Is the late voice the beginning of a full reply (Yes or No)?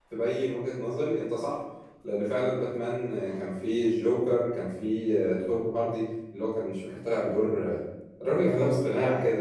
Yes